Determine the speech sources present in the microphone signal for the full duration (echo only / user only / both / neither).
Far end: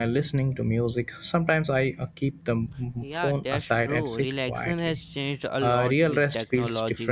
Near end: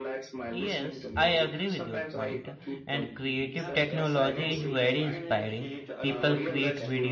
both